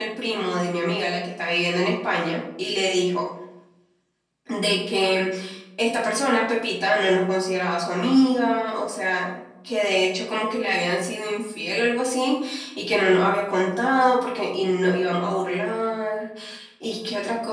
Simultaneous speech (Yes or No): No